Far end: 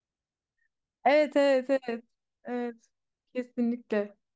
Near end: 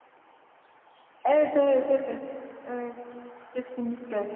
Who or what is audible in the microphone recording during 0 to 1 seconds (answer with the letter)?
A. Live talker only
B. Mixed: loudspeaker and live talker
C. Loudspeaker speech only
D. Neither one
D